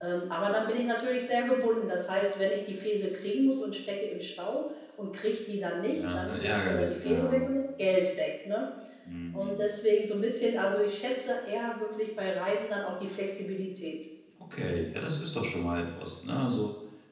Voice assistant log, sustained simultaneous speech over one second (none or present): present